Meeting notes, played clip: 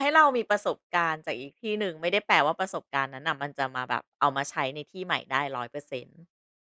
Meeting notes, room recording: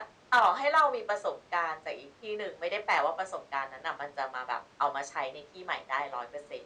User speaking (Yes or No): No